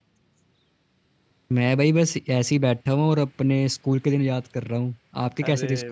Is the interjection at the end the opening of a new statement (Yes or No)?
Yes